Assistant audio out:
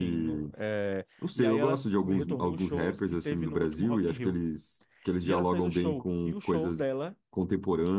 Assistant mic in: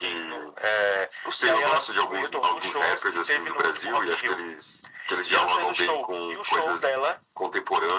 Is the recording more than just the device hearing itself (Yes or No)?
No